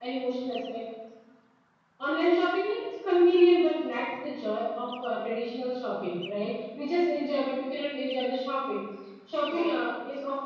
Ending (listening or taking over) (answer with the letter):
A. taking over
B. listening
B